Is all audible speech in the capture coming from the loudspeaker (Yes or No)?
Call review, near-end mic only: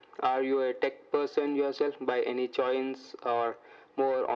Yes